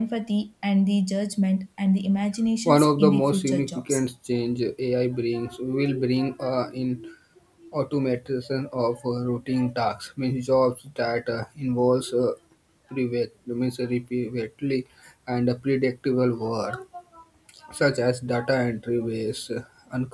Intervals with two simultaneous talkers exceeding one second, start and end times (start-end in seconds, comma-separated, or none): 2.6-4.0